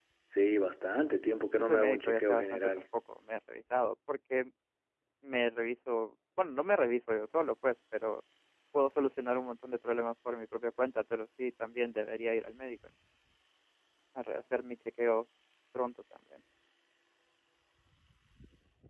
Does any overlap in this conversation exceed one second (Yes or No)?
Yes